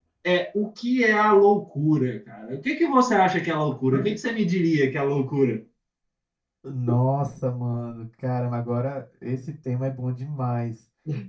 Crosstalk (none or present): none